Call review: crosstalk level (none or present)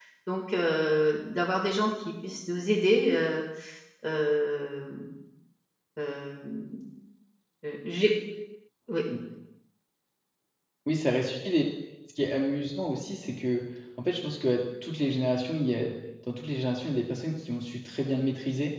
none